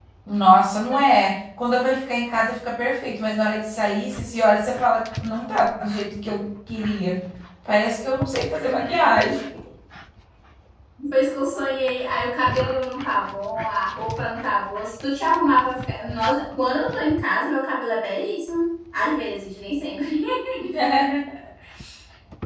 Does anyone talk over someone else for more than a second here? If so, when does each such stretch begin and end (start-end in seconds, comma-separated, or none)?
none